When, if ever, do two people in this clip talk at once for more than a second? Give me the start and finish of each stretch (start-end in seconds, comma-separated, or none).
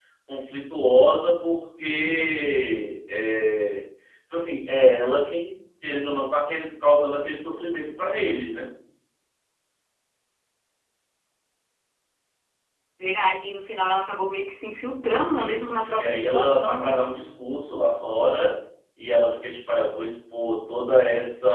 15.2-16.9